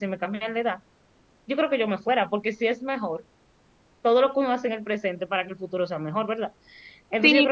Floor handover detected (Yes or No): Yes